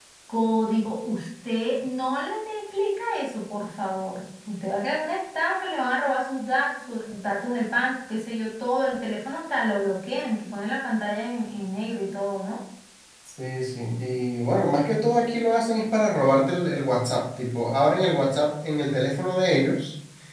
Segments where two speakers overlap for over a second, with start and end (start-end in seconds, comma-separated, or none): none